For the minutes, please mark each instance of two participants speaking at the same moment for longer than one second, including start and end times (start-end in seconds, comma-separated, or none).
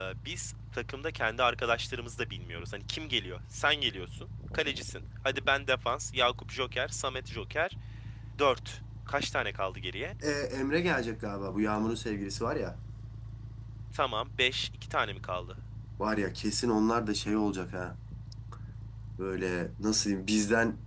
none